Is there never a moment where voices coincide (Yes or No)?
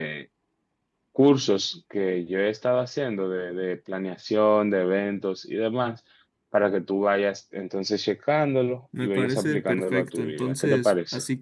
No